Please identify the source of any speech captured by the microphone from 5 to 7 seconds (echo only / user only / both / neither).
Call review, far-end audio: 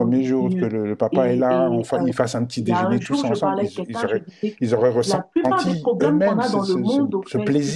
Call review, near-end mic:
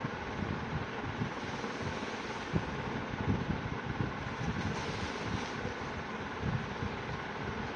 neither